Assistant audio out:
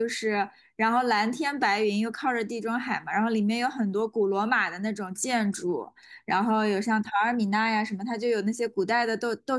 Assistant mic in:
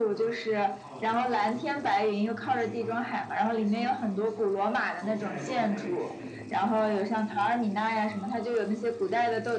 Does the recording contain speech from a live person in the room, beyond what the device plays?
Yes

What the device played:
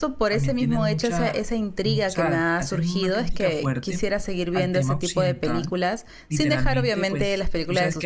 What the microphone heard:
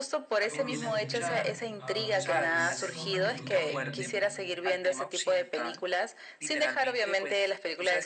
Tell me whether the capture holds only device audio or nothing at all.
No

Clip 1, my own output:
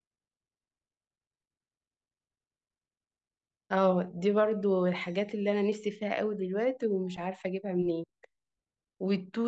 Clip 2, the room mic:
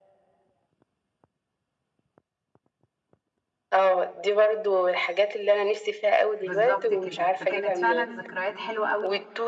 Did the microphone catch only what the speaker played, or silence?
No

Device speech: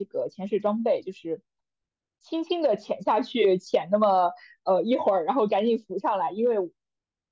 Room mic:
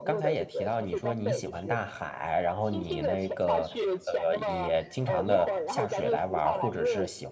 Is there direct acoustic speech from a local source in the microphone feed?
Yes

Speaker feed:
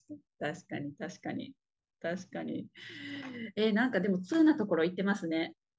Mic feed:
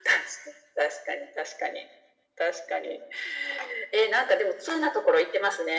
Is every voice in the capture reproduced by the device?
Yes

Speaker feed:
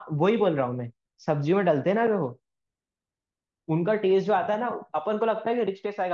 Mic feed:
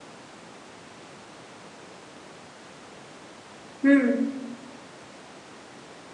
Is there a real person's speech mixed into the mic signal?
Yes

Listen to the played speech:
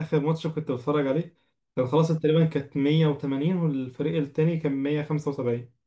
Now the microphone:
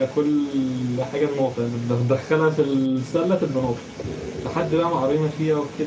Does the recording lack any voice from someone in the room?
No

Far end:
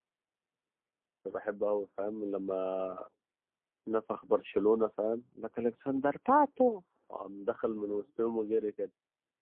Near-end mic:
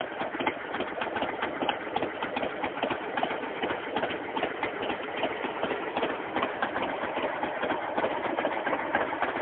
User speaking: No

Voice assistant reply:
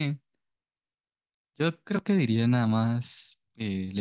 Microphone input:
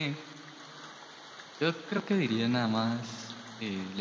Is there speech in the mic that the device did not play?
No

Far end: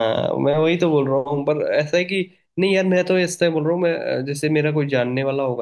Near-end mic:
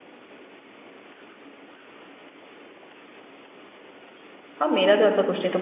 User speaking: Yes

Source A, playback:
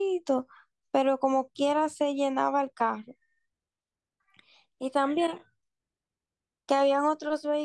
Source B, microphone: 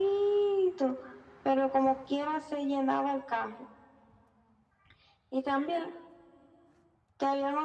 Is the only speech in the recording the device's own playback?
Yes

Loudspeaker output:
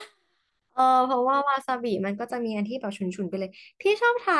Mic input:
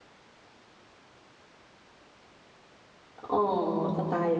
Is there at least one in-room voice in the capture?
Yes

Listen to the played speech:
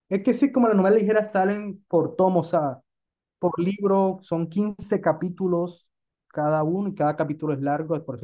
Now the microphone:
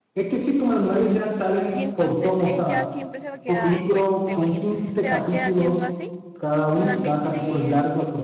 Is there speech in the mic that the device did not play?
Yes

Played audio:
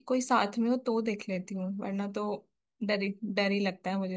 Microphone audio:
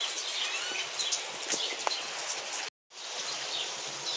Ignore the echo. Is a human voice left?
No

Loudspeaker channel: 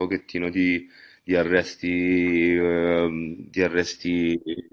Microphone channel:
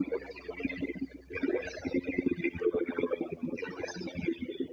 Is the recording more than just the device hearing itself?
No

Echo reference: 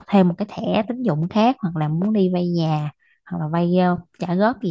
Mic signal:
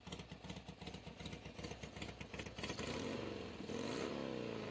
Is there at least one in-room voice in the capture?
No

